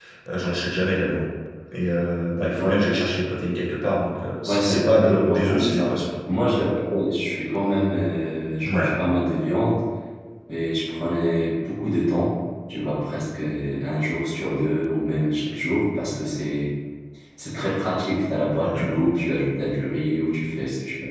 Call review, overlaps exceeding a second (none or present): present